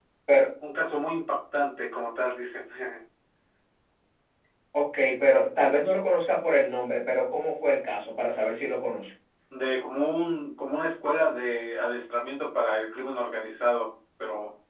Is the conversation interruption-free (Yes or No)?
Yes